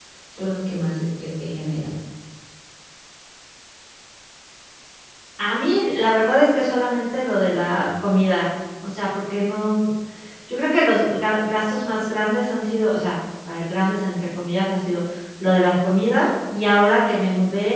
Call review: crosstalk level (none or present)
none